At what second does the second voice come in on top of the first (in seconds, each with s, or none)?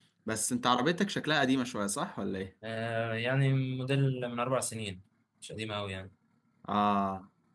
none